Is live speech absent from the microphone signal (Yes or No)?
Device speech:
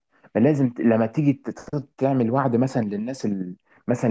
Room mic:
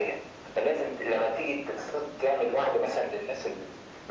Yes